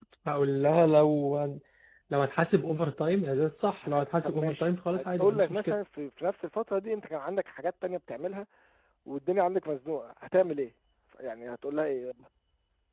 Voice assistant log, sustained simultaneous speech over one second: present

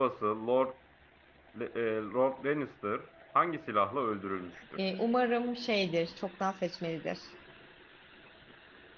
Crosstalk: none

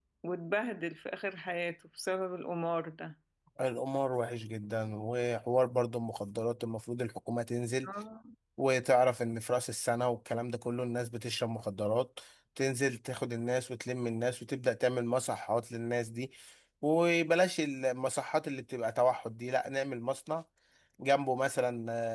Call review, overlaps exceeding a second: none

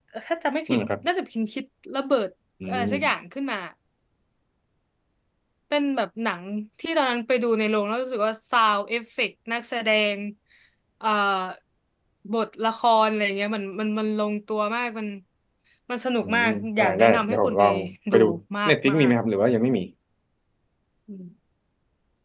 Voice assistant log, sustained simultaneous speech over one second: present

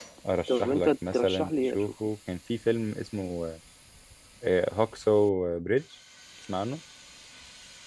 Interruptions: present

